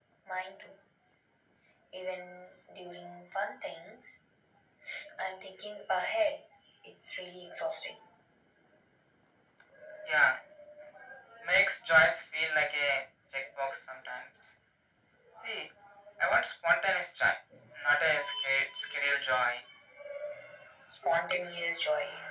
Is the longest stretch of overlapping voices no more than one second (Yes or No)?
Yes